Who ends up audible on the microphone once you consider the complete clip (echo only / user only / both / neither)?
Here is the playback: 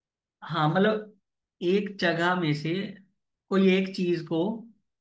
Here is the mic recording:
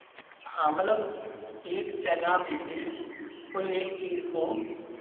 echo only